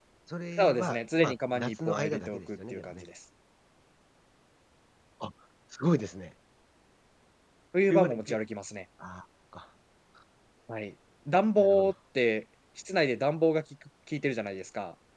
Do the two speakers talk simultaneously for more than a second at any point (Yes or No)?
Yes